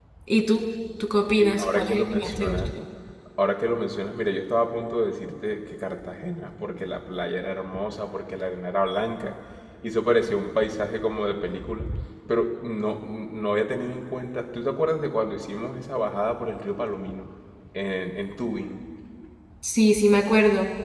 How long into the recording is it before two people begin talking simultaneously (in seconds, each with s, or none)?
1.4 s